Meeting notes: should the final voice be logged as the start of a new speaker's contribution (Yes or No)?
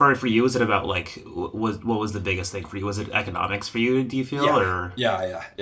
Yes